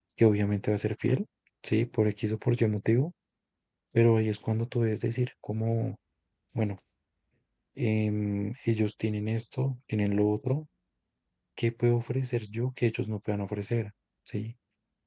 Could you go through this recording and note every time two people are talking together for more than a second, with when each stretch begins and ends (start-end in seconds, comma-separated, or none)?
none